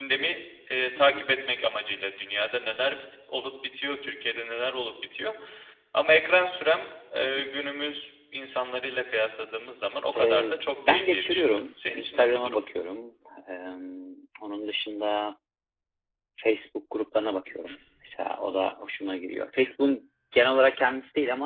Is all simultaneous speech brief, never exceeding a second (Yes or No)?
No